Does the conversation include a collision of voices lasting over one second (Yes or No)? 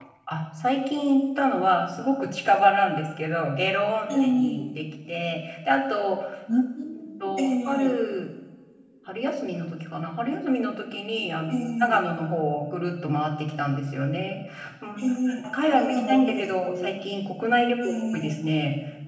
Yes